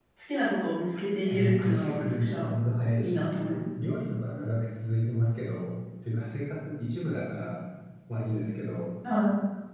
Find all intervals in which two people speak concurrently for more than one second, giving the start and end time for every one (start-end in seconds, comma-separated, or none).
1.2-2.5